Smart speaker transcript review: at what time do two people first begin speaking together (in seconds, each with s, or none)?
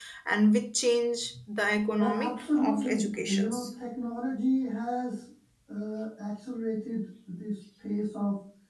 2.0 s